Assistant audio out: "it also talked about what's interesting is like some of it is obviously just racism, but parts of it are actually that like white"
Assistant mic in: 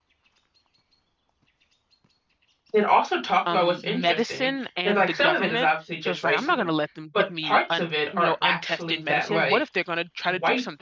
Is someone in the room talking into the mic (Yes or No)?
Yes